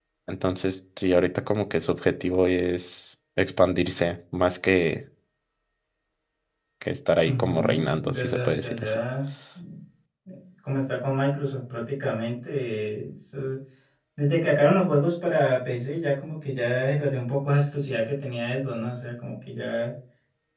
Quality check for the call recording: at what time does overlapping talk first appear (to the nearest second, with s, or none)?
7 s